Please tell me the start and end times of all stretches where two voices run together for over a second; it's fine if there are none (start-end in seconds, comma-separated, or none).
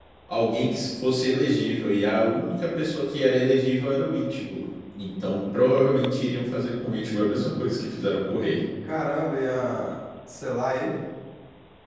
none